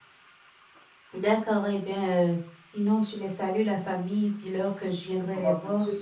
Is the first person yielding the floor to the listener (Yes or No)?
Yes